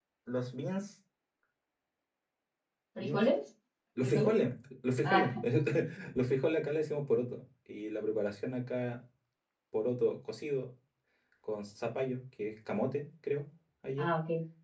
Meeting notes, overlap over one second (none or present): none